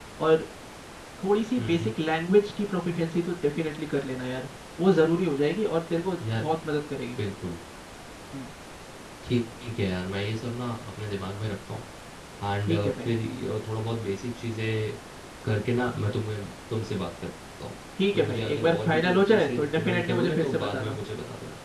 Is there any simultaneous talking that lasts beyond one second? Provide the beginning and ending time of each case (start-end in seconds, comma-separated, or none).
18.1-21.0